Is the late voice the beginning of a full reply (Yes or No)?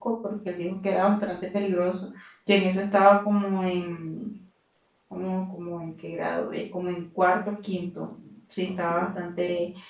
No